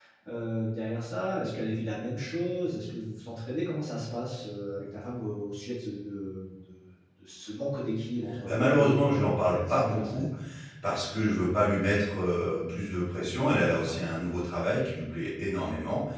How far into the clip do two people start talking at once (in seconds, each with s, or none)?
8.4 s